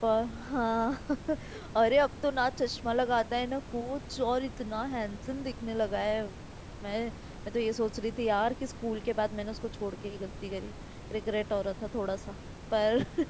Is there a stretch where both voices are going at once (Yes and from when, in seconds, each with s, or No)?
No